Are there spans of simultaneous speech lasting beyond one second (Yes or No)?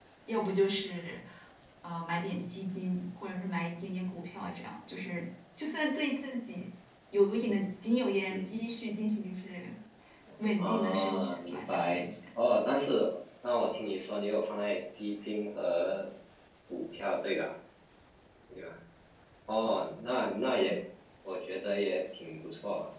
Yes